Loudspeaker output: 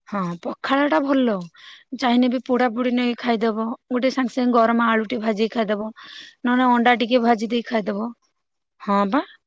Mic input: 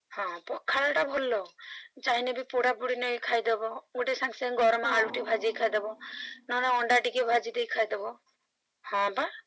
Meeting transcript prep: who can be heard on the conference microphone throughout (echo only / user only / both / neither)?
both